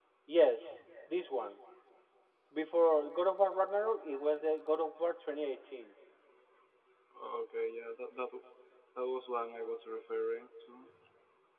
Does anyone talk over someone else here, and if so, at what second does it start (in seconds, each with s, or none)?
none